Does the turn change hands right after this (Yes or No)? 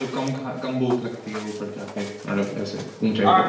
Yes